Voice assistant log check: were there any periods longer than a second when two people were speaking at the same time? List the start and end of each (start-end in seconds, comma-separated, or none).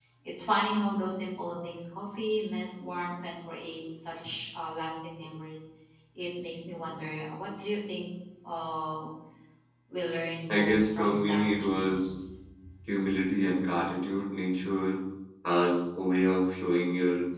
10.5-12.1